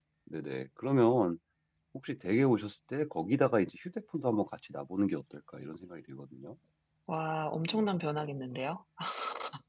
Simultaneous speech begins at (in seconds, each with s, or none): none